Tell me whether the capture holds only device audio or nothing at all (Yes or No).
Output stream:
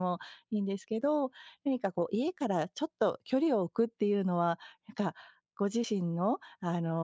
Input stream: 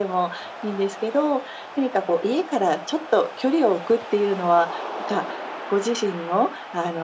Yes